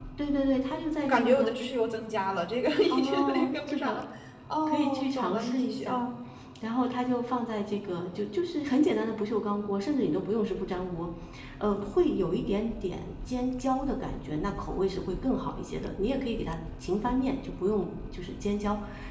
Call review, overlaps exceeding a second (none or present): present